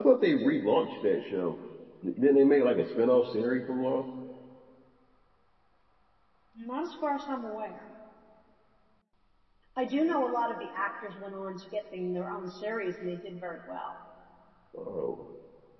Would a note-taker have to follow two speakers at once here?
No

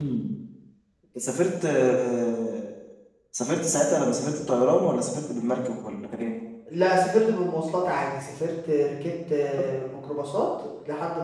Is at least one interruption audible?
No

